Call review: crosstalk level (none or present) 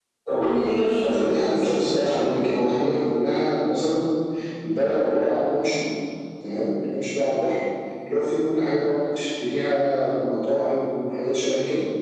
present